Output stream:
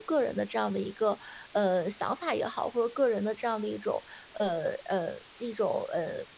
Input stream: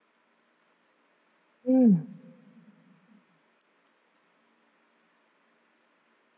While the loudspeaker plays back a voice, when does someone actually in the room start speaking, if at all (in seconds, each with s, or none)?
1.6 s